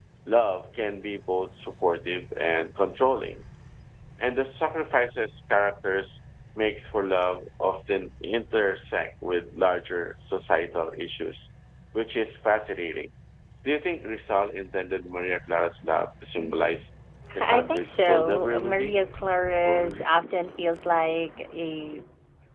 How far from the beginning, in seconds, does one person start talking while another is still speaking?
17.4 s

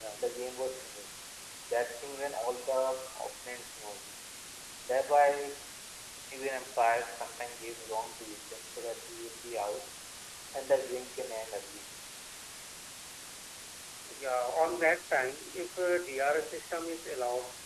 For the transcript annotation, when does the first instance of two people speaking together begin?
none

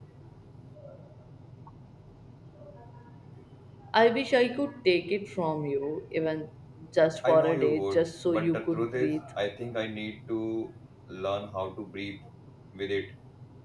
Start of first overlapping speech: 7.2 s

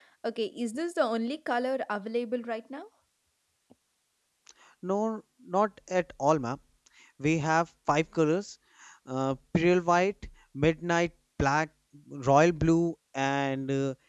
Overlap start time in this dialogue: none

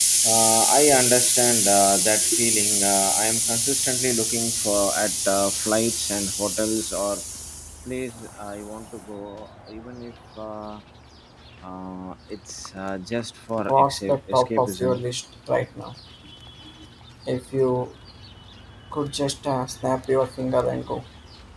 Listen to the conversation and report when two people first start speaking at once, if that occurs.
13.7 s

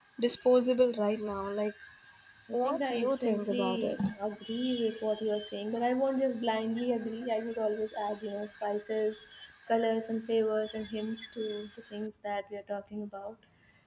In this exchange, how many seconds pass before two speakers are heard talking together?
2.6 s

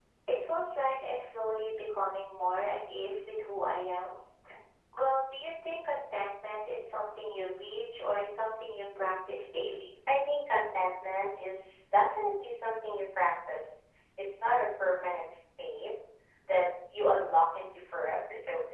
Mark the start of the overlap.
none

